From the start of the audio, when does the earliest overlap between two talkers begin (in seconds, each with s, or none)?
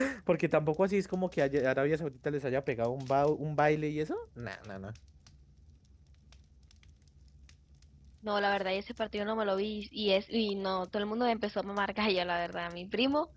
none